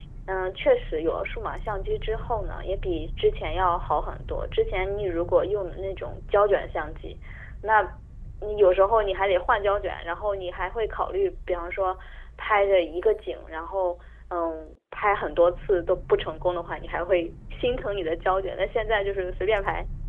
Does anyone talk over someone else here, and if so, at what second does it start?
none

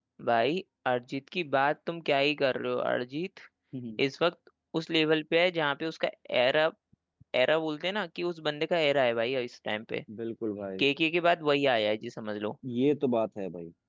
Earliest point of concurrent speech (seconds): none

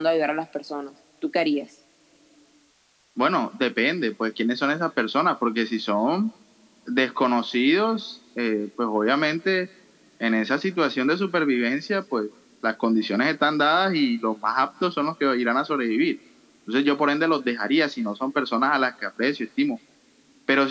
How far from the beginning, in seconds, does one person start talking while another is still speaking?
none

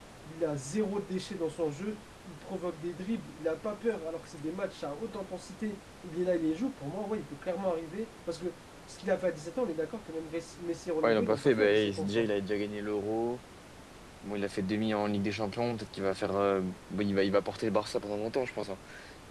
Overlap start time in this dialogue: 11.0 s

